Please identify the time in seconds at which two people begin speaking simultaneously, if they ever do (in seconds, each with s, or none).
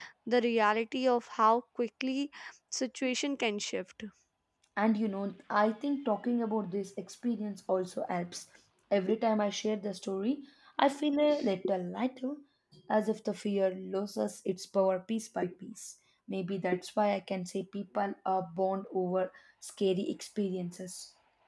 none